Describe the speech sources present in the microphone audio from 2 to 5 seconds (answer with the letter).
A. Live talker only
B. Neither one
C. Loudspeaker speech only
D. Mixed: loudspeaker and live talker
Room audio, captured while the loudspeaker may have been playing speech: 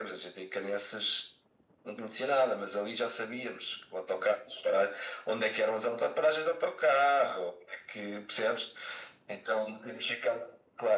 C